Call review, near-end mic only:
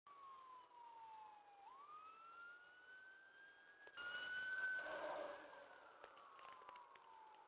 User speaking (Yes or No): No